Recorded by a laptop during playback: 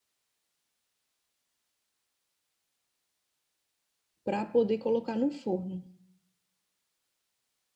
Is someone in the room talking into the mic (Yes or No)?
Yes